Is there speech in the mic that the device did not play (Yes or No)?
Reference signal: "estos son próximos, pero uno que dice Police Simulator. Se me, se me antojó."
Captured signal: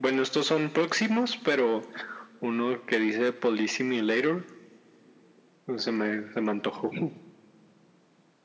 No